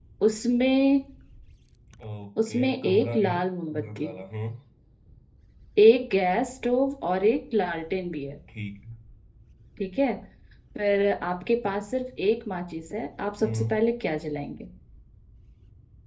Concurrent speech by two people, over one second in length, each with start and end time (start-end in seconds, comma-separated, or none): 2.5-4.1